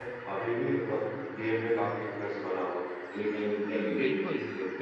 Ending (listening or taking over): taking over